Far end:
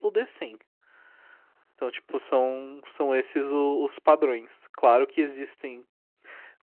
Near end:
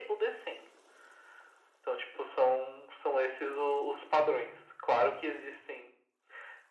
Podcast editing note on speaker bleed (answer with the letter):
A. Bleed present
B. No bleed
A